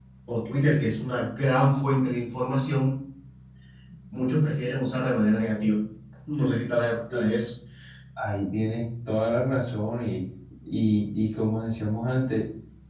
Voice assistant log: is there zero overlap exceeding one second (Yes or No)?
Yes